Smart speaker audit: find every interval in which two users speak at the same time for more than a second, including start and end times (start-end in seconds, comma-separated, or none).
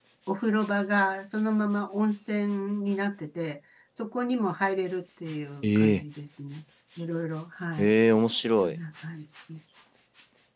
none